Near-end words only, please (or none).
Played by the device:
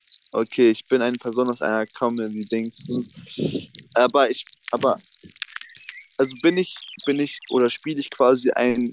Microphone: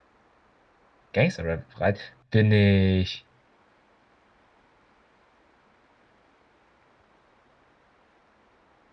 Gangster-Rap breit? Bin ich.